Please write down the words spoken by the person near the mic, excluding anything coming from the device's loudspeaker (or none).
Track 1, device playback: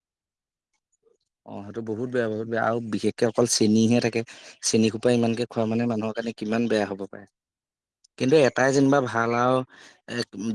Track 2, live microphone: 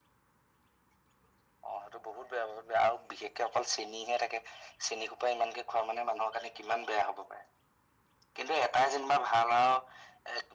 none